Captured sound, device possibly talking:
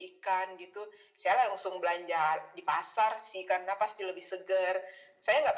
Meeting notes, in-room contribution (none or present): none